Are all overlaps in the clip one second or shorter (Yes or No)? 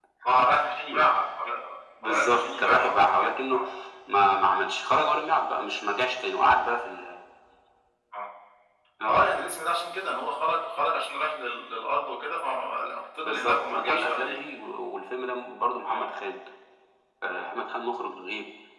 No